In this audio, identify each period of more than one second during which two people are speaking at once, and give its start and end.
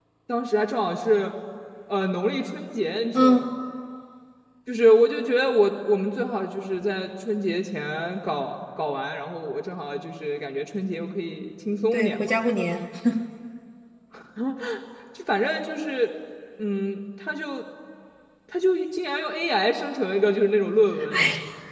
none

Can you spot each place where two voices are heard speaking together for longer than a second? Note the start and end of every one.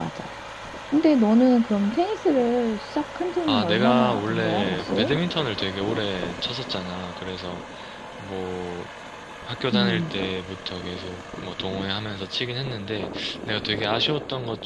3.5-5.1

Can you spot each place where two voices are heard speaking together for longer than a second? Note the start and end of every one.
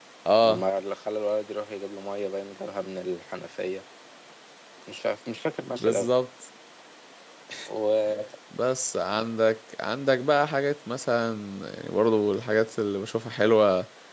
none

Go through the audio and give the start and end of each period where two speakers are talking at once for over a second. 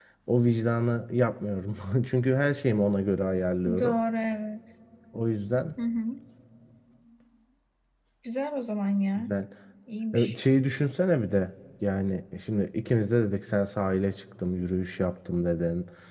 none

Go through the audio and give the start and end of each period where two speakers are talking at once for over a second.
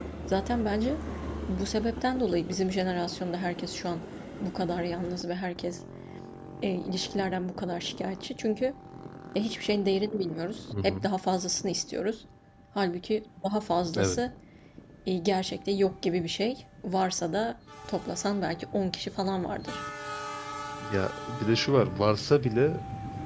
none

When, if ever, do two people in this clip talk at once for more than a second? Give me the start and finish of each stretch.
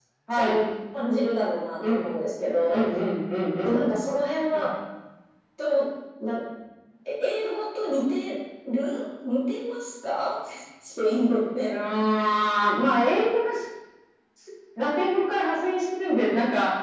none

